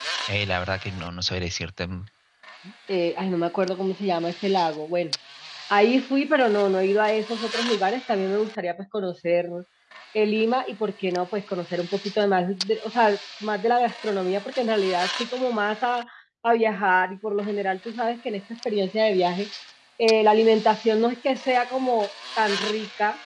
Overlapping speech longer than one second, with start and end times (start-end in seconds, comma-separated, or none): none